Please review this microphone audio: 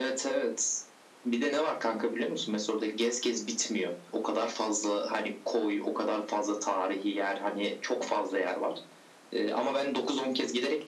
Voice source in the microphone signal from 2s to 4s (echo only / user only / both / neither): echo only